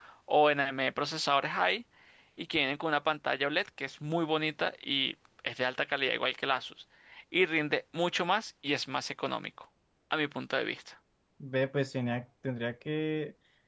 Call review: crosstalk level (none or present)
none